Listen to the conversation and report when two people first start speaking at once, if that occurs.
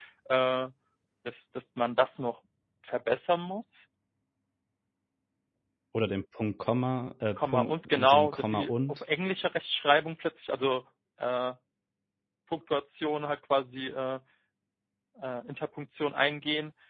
7.4 s

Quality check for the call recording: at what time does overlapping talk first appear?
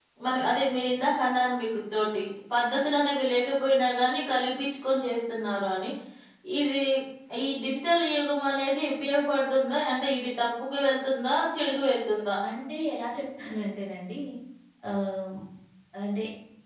none

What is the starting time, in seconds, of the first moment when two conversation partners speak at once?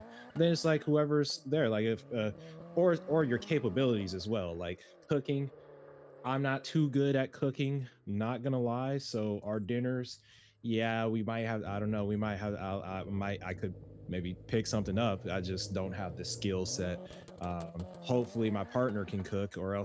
none

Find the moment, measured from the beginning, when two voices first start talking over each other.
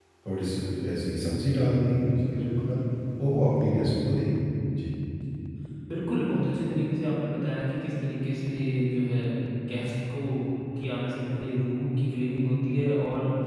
1.3 s

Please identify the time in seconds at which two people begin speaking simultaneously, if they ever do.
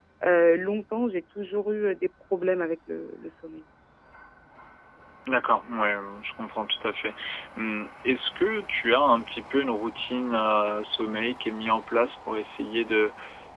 none

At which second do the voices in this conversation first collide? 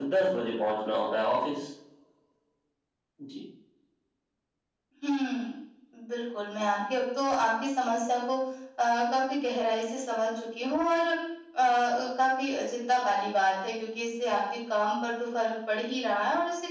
none

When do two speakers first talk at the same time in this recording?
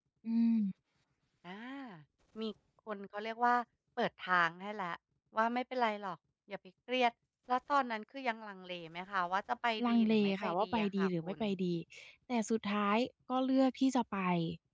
9.8 s

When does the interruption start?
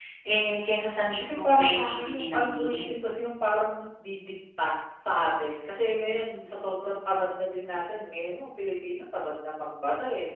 1.2 s

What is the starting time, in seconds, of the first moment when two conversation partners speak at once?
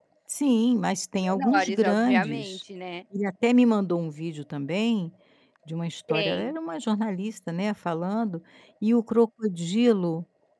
1.4 s

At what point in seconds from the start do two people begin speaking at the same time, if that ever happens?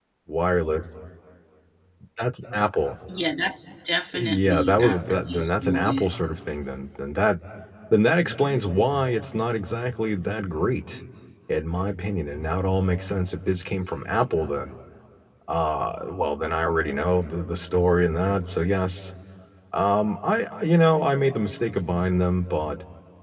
4.1 s

